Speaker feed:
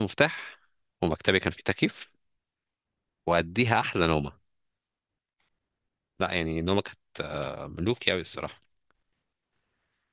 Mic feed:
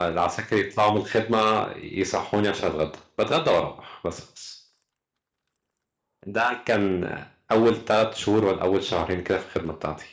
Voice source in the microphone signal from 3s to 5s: user only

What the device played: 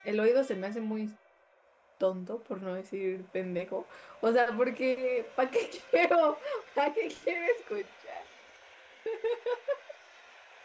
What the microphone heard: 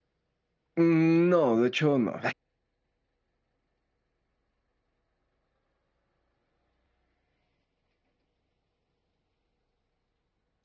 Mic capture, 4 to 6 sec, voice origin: neither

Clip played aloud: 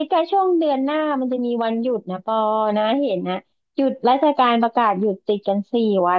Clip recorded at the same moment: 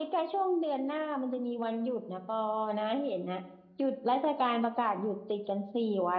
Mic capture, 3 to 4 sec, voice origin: echo only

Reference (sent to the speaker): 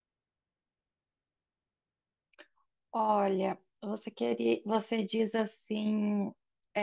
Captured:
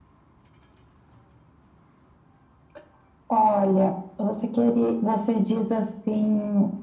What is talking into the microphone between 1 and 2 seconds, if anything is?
neither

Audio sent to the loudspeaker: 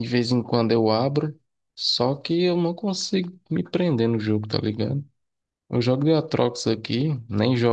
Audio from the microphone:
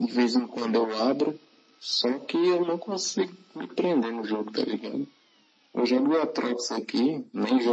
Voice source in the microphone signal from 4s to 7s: echo only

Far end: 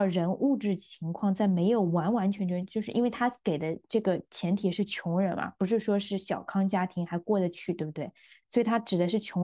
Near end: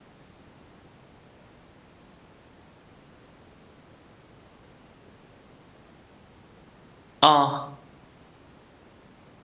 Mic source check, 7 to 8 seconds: user only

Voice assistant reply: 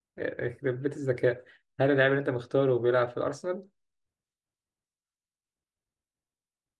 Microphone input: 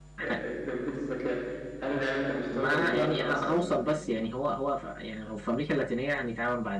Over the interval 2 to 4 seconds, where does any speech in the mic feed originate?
both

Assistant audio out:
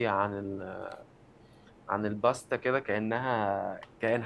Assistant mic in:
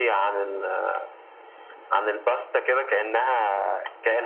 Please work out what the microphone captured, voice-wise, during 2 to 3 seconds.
echo only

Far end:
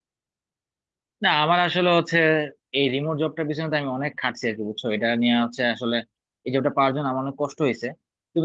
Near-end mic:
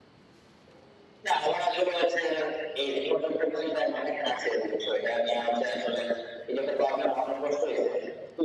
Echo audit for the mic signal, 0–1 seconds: neither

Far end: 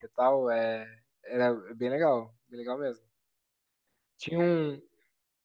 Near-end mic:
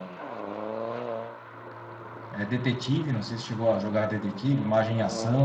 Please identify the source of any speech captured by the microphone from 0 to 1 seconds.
neither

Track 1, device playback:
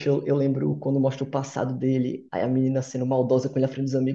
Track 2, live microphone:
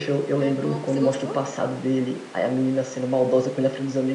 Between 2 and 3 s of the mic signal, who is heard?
echo only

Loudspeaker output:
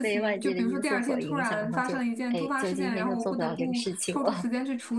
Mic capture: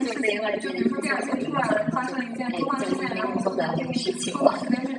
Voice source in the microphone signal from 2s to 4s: echo only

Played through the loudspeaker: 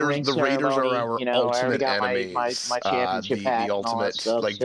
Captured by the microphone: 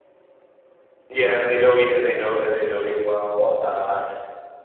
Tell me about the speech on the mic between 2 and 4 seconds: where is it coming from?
user only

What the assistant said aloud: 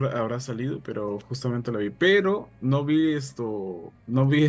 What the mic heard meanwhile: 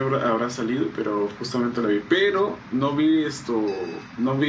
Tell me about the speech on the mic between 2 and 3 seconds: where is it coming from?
echo only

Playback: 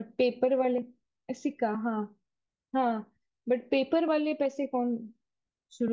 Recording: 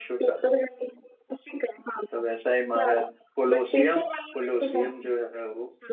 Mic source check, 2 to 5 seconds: both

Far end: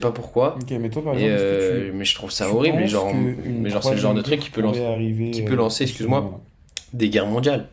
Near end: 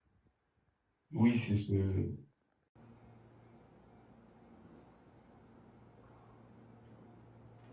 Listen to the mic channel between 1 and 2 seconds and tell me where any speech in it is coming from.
user only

